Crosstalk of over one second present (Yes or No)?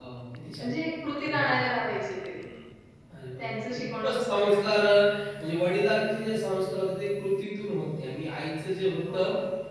Yes